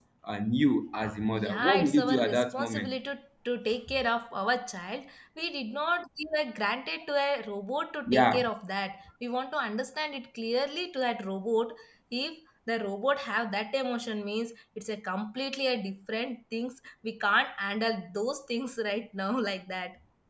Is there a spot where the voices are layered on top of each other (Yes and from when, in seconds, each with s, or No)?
Yes, from 1.3 s